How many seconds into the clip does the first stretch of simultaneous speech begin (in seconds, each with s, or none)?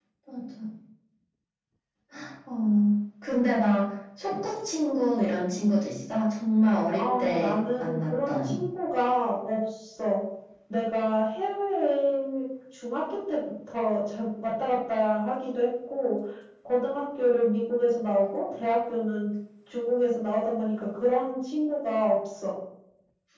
7.0 s